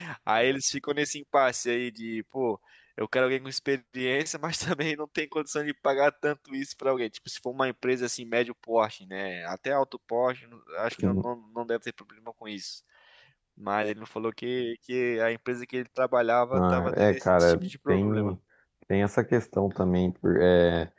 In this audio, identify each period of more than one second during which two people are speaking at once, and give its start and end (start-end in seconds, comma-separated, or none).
16.5-18.3